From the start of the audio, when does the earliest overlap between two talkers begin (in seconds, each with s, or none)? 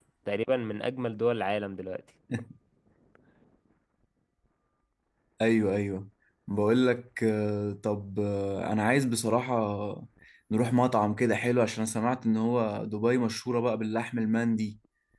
none